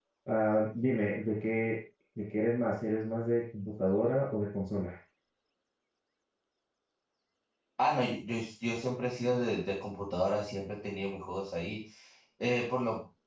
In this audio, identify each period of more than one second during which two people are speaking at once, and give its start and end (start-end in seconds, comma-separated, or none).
none